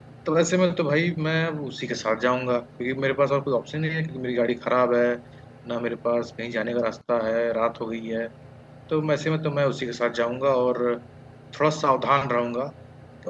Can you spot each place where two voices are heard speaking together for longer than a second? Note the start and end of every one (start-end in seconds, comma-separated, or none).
none